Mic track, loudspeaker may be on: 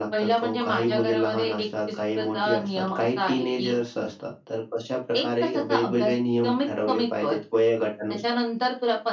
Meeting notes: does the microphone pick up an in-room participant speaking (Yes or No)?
No